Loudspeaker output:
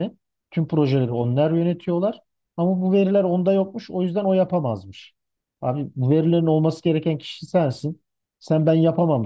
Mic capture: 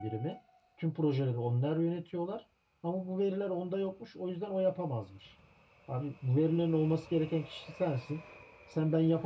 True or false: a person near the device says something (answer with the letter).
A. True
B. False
B